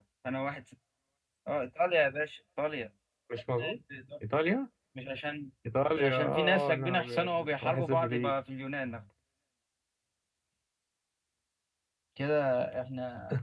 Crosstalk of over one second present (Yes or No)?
Yes